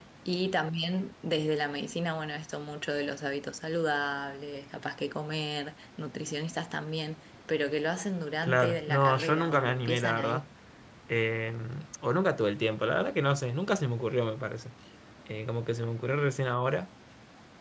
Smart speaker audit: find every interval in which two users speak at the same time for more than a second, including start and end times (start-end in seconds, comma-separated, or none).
8.4-10.4